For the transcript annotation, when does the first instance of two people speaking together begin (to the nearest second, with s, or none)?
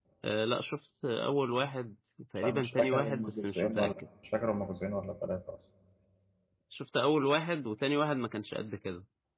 2 s